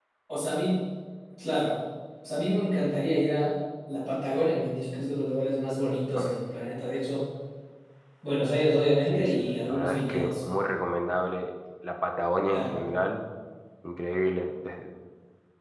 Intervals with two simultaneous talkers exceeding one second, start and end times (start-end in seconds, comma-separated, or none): 9.1-10.3